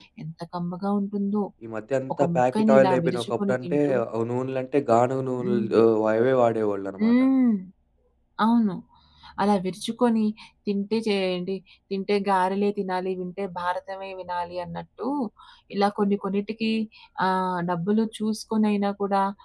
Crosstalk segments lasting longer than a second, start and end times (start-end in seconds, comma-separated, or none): 2.2-3.9